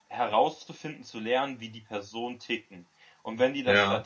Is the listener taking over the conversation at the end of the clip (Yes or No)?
No